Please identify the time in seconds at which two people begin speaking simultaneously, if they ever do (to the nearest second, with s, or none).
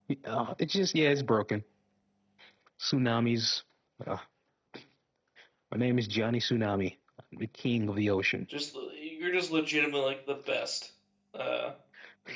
none